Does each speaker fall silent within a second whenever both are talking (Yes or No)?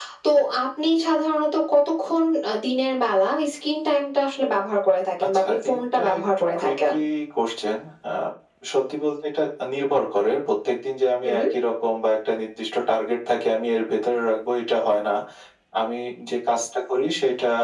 No